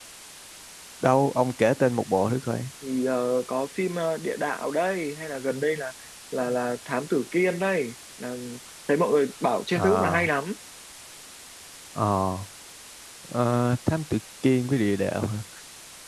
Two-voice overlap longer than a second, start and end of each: none

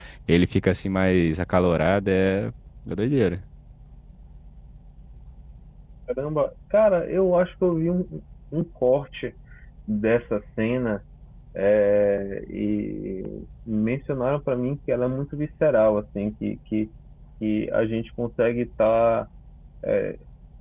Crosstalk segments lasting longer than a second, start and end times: none

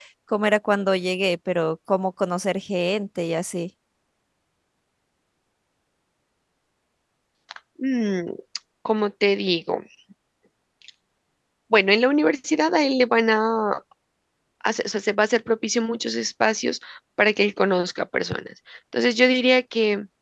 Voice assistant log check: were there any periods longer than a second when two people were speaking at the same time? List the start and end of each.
none

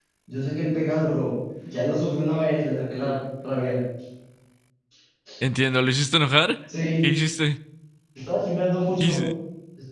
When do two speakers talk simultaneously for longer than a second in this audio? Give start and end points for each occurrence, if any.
none

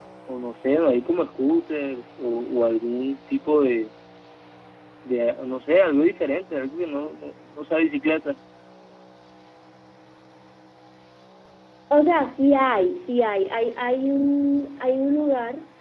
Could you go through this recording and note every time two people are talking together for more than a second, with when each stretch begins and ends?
none

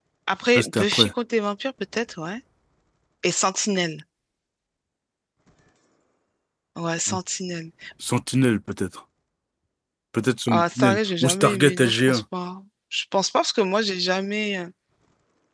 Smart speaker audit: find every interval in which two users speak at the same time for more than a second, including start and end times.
10.5-12.2

